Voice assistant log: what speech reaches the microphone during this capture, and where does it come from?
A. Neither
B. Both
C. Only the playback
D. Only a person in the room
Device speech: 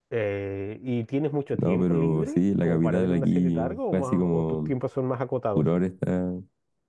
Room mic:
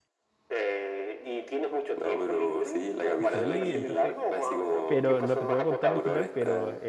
B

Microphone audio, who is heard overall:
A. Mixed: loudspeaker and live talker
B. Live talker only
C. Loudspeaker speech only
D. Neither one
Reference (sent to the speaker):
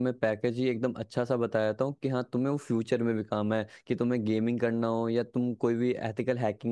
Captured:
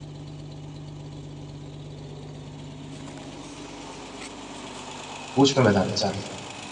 B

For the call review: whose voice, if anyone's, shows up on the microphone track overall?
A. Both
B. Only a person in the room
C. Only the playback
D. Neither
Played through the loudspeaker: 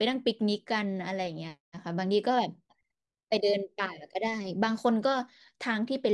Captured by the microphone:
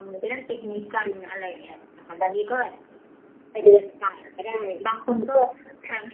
C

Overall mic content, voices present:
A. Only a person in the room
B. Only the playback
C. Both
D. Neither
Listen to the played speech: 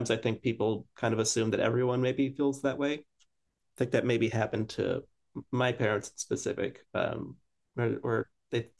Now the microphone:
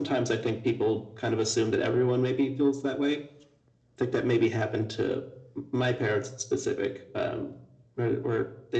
B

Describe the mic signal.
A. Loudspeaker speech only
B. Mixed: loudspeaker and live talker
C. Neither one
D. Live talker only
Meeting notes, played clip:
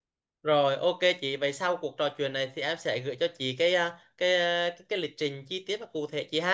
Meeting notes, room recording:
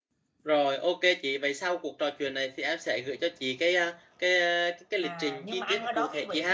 B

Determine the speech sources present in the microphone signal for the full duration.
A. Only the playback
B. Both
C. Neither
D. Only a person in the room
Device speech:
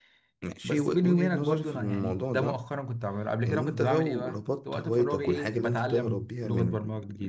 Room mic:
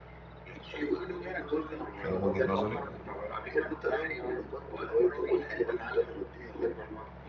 B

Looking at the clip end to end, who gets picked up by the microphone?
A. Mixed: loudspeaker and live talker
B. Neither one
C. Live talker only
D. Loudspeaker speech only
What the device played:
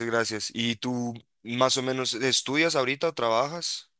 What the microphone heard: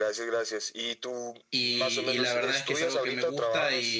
A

